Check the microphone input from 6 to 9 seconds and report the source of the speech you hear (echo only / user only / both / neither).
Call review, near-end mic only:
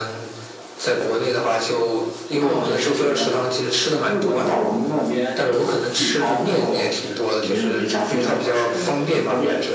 echo only